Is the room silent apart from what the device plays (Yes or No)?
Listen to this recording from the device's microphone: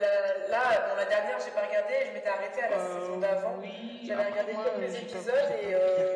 No